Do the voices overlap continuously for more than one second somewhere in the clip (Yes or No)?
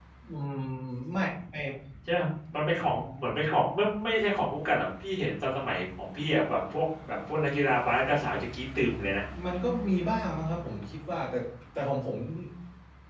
No